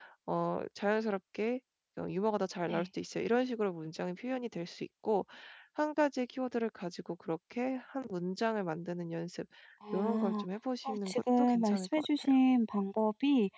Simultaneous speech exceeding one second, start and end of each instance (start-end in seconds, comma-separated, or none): 10.8-12.3